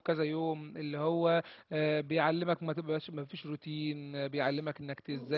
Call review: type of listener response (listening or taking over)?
taking over